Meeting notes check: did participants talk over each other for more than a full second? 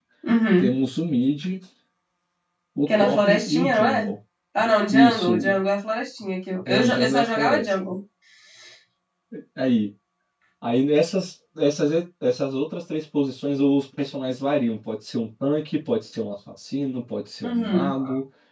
Yes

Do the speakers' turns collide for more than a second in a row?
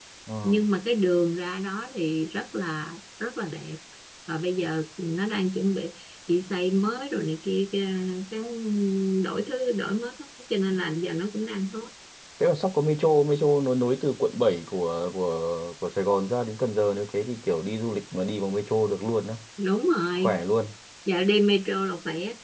No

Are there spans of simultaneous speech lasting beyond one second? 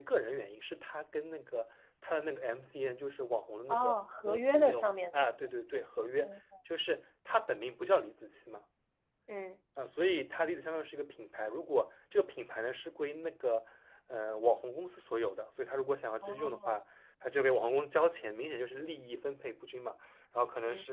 Yes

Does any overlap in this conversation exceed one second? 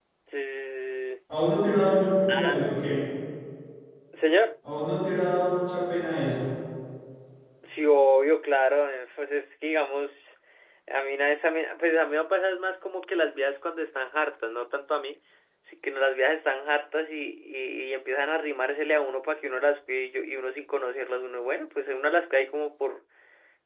No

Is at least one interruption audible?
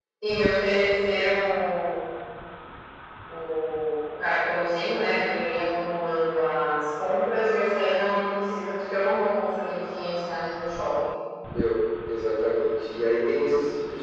No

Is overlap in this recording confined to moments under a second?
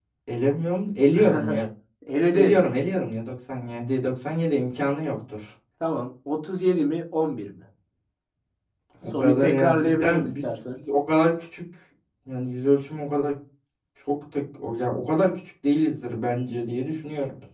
No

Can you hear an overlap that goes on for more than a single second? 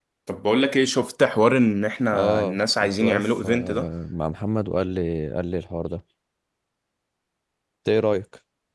Yes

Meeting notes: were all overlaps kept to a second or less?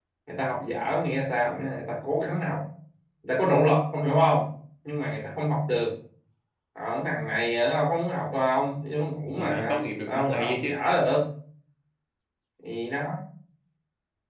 No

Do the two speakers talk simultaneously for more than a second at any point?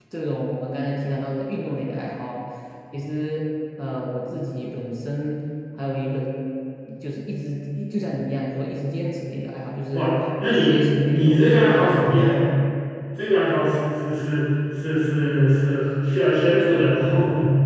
Yes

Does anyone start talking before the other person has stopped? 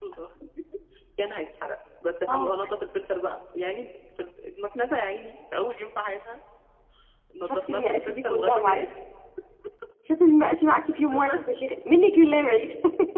Yes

